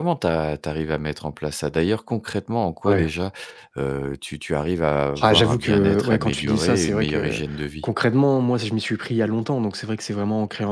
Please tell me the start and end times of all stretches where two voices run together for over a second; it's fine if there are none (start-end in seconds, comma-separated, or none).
5.2-7.4